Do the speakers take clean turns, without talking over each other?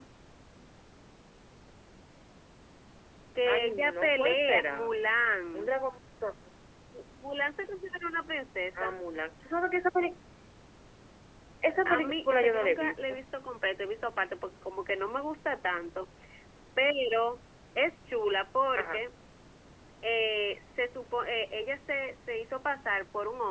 No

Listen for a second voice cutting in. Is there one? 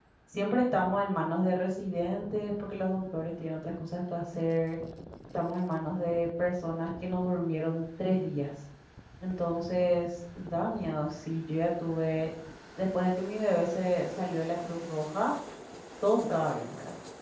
No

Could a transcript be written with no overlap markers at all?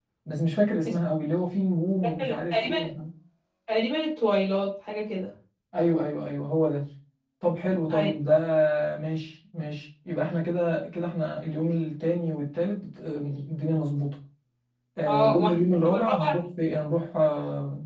No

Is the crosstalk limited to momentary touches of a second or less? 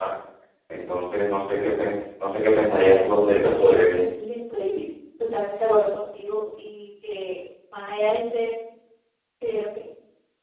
No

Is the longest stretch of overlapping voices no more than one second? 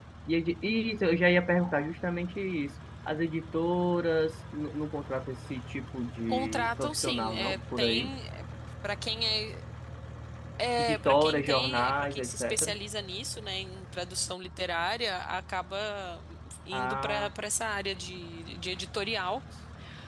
No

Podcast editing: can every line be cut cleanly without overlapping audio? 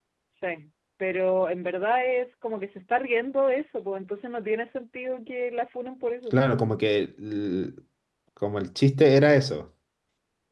Yes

